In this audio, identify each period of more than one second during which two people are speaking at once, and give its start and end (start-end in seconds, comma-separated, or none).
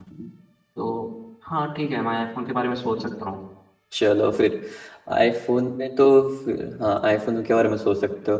none